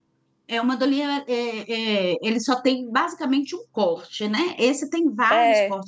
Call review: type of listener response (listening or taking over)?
listening